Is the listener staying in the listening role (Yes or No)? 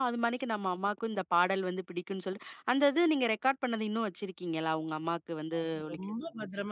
No